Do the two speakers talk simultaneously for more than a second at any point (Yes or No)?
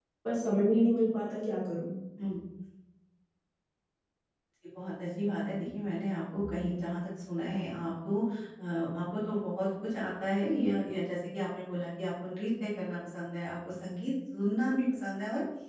No